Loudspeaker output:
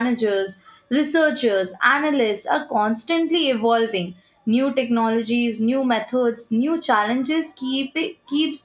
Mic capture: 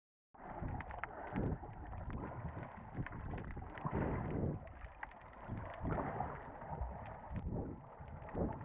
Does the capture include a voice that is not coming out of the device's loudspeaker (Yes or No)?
No